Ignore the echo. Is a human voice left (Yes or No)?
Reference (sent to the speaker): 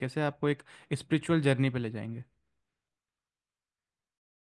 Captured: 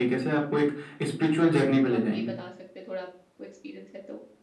Yes